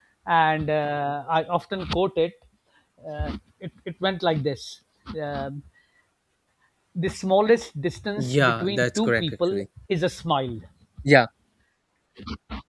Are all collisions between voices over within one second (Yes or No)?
No